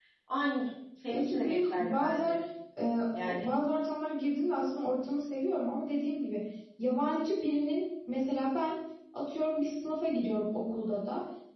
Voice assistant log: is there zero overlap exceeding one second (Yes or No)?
No